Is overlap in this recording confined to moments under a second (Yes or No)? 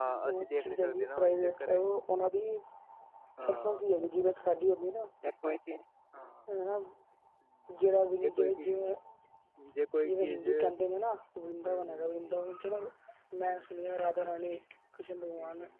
No